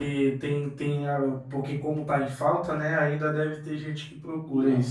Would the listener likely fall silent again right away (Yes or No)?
No